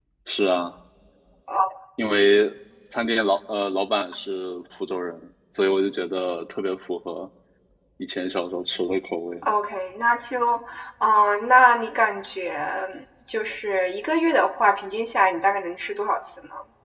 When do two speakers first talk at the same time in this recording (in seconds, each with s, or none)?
none